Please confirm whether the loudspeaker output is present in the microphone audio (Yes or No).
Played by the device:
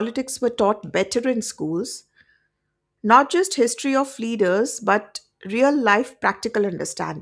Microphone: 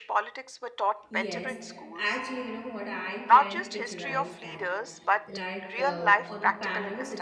Yes